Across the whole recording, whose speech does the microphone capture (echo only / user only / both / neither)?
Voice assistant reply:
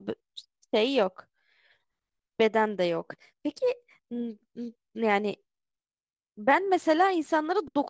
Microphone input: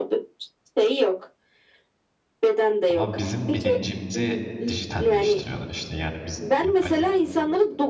both